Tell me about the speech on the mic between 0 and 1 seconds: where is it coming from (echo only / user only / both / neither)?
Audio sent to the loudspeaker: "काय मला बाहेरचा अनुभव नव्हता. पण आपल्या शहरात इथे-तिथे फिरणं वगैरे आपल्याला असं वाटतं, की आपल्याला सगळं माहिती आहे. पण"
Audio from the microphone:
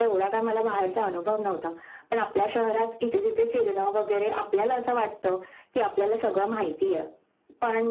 echo only